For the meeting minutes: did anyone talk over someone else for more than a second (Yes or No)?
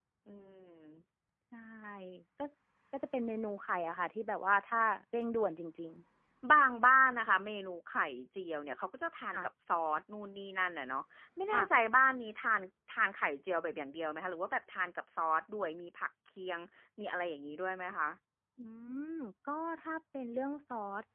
No